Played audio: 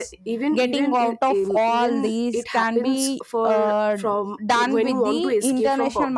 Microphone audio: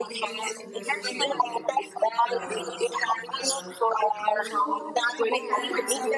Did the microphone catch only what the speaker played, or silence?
No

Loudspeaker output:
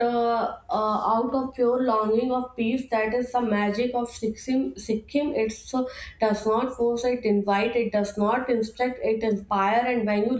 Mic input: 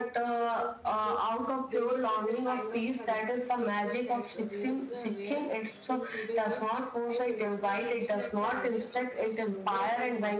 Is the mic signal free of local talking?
No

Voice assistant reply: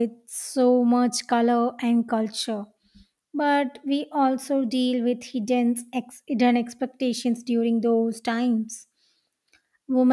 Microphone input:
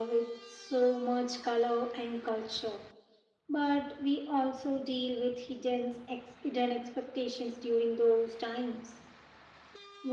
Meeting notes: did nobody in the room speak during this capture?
Yes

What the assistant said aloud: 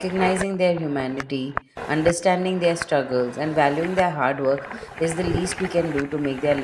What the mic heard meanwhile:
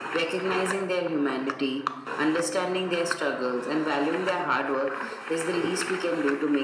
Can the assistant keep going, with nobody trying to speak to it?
Yes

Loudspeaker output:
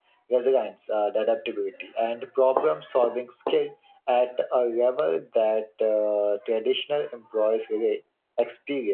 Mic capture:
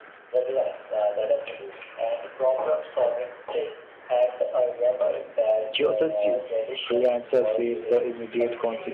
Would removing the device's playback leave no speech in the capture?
No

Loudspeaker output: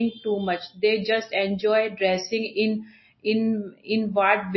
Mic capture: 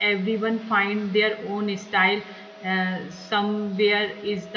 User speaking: Yes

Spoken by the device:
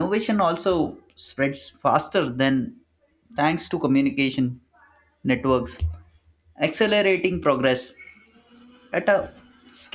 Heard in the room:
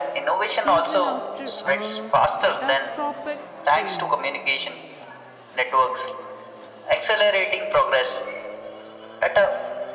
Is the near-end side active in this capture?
Yes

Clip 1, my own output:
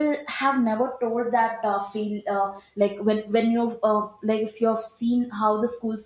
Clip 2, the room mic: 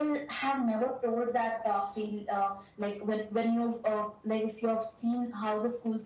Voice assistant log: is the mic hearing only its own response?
Yes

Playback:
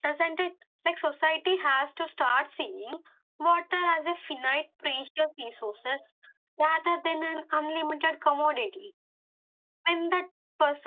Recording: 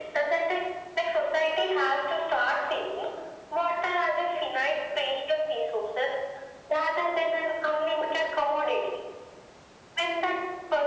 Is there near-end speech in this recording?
No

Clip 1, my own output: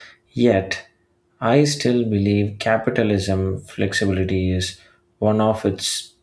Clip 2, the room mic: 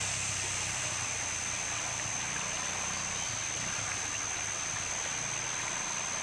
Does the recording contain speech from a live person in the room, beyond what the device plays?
No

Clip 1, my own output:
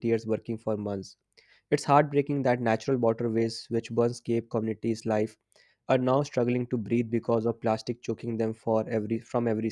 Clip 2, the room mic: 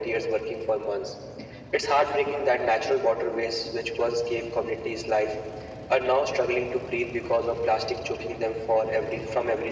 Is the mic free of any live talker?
Yes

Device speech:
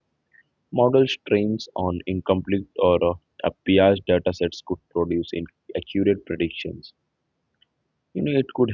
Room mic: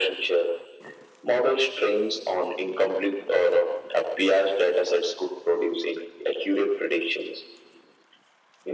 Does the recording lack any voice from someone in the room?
Yes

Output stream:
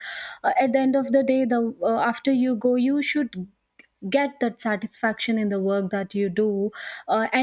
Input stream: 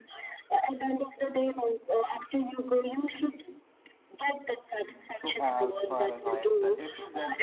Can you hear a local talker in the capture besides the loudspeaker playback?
Yes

